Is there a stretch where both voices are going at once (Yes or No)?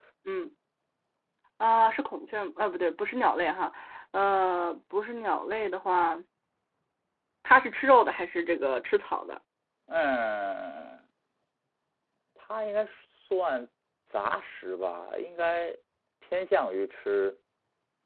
No